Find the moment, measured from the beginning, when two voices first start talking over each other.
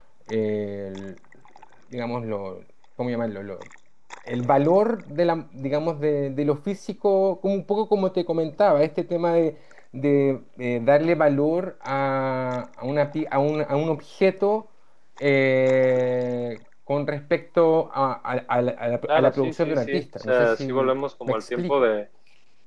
19 s

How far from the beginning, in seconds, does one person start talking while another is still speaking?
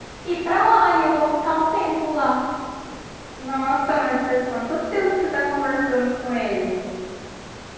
none

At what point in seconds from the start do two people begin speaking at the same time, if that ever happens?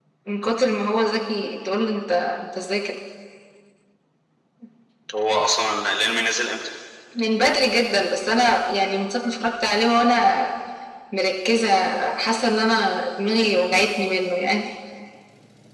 none

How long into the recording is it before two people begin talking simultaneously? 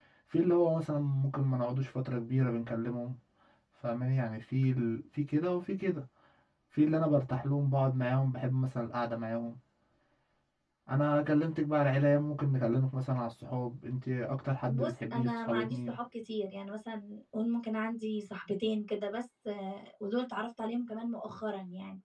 15 s

